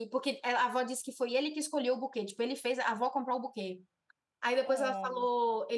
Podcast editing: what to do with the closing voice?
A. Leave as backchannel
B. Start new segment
A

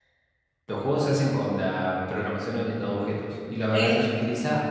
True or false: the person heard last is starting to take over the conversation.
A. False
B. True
A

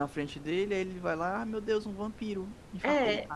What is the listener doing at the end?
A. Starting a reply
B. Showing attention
A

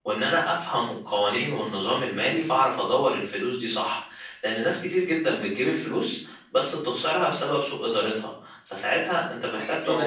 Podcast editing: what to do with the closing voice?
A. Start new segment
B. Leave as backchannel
A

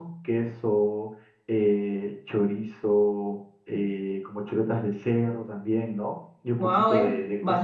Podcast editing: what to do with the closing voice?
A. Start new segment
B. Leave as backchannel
A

